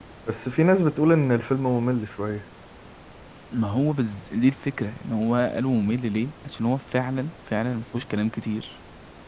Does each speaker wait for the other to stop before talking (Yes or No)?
Yes